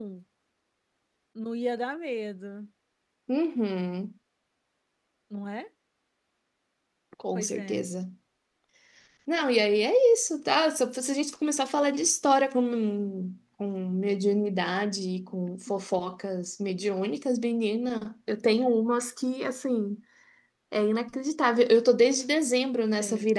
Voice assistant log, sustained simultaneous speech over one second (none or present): none